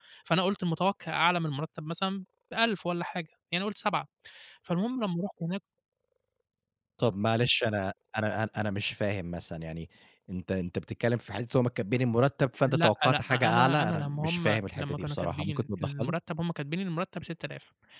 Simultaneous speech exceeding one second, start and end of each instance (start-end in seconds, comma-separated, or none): 12.7-16.1